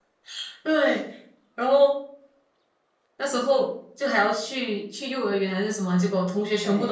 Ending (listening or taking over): listening